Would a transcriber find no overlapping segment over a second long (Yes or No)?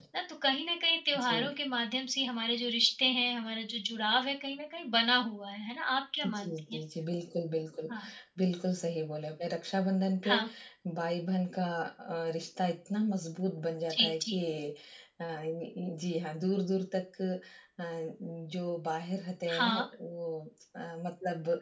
Yes